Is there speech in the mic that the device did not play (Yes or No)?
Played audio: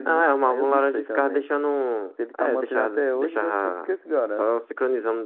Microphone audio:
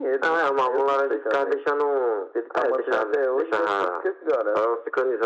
No